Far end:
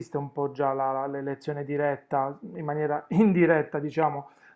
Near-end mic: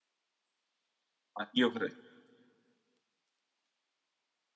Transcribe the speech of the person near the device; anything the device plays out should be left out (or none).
Ma Io cre-